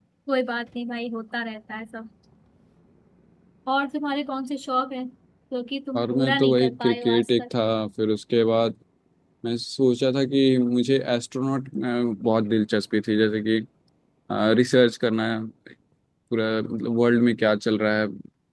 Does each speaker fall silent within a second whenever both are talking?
No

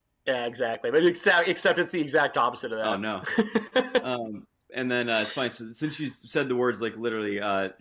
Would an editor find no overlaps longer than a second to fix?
Yes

